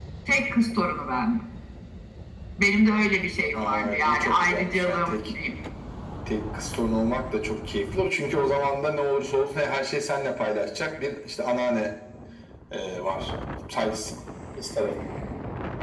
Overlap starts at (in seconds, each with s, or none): 3.6 s